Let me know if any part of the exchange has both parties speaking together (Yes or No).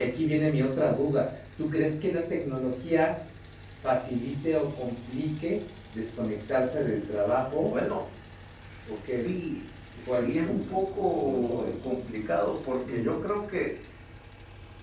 Yes